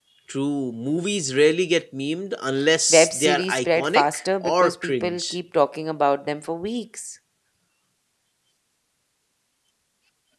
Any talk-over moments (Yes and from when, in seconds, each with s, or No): Yes, from 2.9 s